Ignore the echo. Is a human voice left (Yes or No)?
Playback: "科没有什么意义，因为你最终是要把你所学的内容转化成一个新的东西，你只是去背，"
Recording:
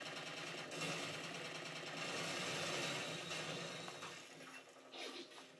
No